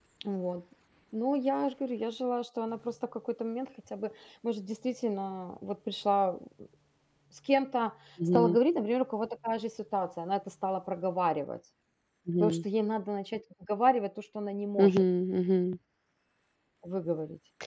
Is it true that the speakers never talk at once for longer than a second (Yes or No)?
Yes